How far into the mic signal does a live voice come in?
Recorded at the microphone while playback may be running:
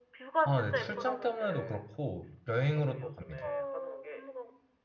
0.4 s

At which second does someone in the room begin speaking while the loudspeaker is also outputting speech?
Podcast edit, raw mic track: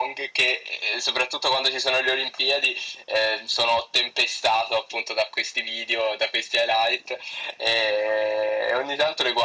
none

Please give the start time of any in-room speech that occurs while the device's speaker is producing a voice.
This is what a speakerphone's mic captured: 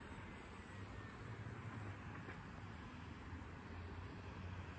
none

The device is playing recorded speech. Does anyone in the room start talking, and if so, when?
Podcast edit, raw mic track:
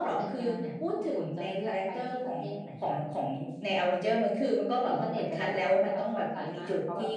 none

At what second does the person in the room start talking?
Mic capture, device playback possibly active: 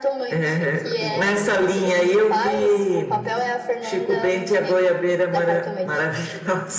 none

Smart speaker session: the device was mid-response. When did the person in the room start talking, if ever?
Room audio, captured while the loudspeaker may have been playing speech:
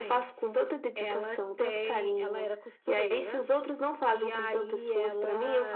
none

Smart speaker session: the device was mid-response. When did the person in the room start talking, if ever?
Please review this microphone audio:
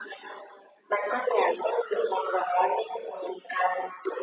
none

